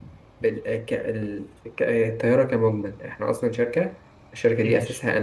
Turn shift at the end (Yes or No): No